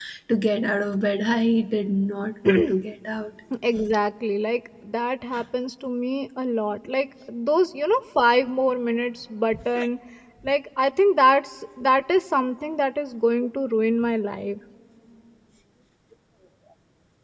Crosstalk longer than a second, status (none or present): none